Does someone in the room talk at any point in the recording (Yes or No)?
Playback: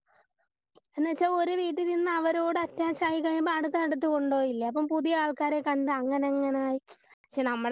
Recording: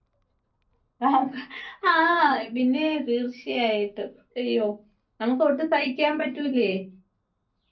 Yes